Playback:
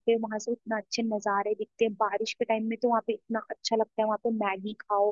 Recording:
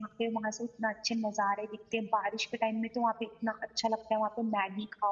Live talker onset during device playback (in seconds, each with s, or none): none